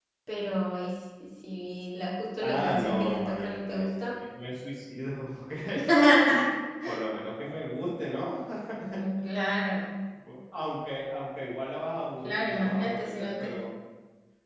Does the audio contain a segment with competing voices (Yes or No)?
Yes